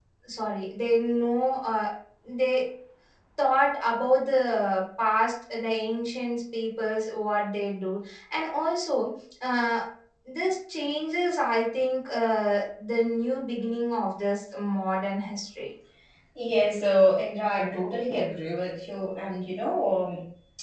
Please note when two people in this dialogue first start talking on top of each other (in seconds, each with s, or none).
none